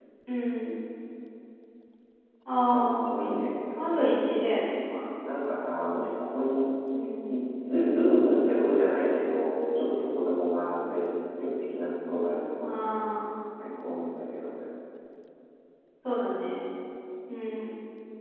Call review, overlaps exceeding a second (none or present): none